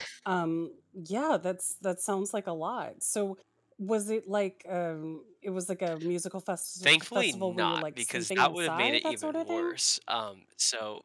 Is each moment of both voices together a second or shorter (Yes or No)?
No